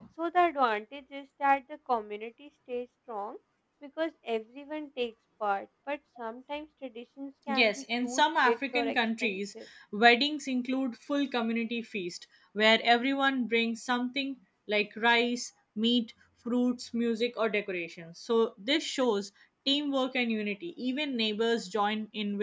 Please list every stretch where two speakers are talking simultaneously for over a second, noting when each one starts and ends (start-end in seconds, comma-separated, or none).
7.5-9.3